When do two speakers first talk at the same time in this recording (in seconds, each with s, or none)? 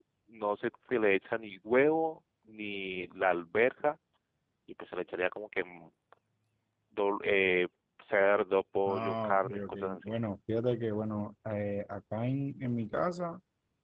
8.9 s